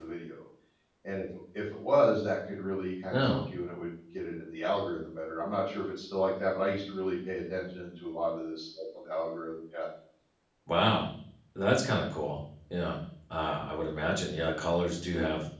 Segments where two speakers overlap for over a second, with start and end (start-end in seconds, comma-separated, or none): none